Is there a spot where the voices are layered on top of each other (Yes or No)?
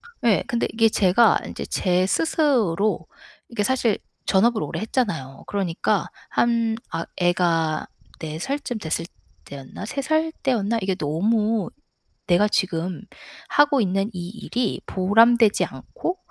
No